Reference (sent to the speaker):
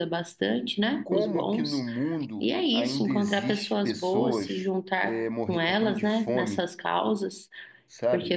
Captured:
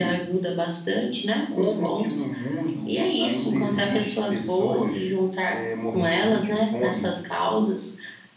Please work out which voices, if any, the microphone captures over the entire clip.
echo only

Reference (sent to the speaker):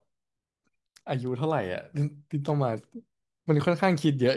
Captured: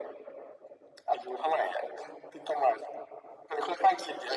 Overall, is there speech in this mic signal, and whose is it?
echo only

